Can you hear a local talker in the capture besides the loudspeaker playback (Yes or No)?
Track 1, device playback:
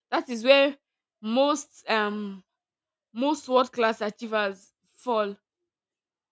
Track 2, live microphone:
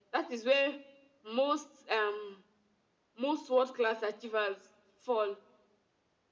No